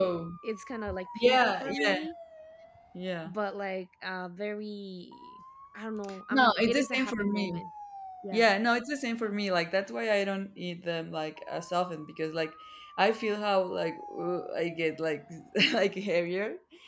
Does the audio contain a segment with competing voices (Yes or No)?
Yes